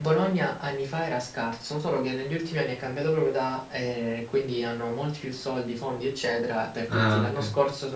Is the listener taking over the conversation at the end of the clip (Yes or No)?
No